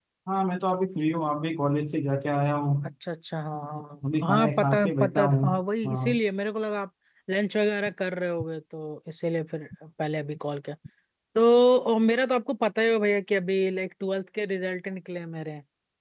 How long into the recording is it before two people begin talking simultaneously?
4.2 s

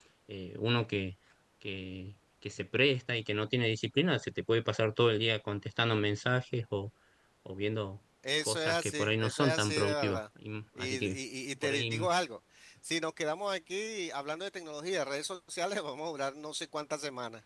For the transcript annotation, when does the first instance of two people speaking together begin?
8.5 s

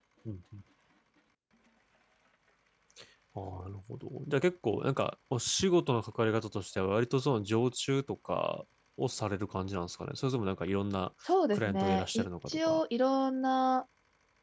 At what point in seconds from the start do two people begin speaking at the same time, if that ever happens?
11.5 s

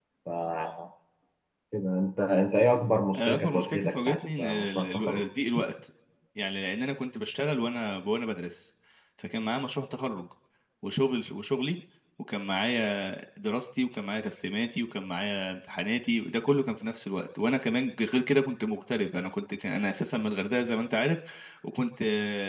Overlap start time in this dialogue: 3.1 s

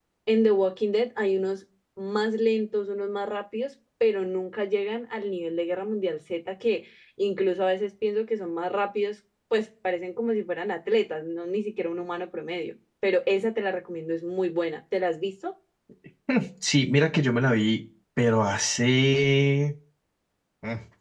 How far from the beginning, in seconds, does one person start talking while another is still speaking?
none

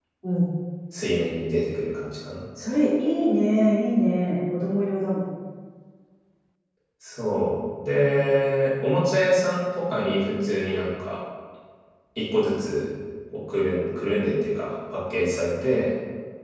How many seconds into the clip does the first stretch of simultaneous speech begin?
none

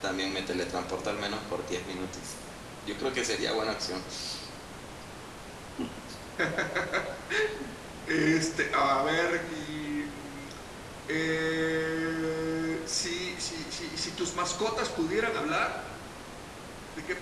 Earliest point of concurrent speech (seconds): none

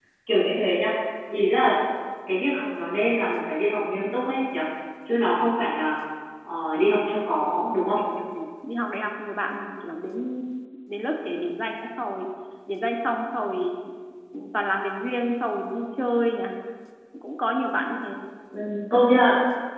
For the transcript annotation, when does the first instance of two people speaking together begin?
none

